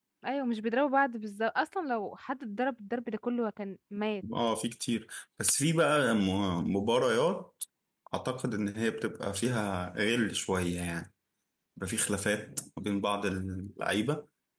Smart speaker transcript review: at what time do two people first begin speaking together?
none

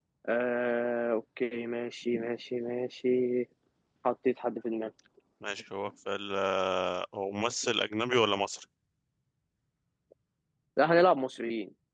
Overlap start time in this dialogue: none

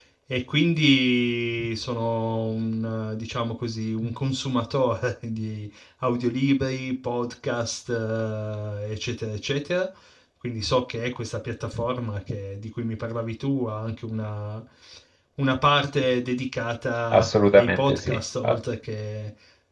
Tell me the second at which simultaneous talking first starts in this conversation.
17.1 s

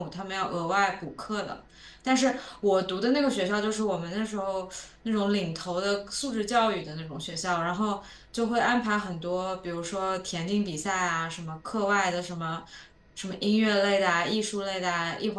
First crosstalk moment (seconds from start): none

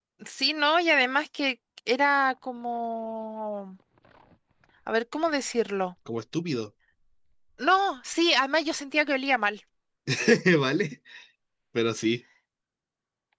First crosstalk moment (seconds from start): none

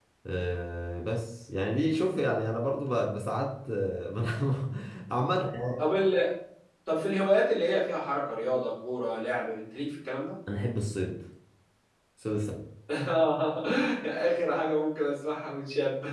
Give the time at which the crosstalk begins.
none

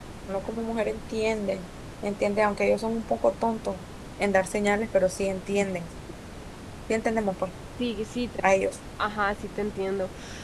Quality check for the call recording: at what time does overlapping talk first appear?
none

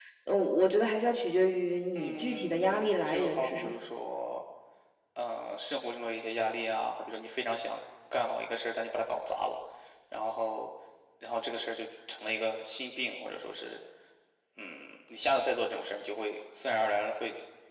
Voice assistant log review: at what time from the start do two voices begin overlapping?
2.0 s

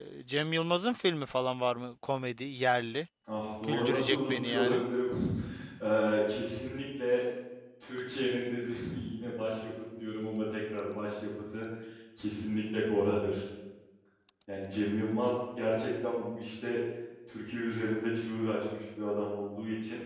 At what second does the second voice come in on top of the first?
3.6 s

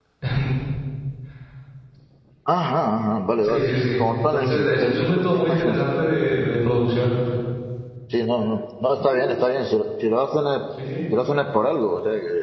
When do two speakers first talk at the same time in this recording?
3.4 s

